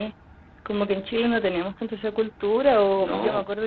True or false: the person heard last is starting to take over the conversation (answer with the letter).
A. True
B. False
B